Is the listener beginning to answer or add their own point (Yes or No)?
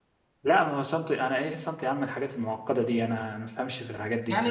Yes